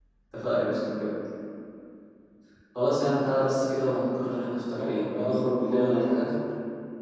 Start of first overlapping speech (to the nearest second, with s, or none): 5 s